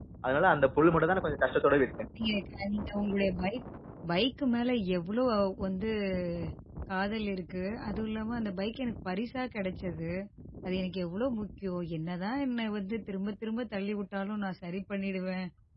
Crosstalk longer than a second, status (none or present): none